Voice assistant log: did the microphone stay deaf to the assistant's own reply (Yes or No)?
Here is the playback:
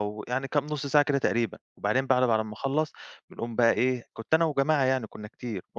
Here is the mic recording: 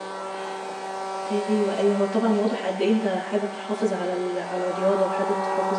Yes